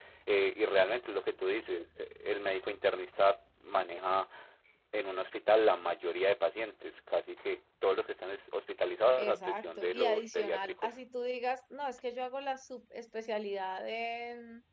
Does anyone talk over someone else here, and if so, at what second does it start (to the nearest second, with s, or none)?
9 s